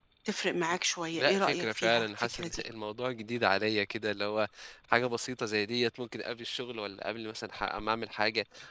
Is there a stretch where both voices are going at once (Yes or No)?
Yes